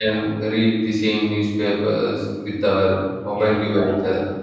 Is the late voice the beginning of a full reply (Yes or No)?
Yes